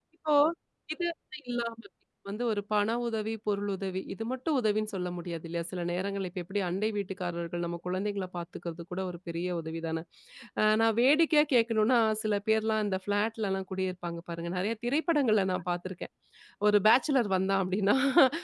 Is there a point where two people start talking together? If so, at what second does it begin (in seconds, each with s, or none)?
none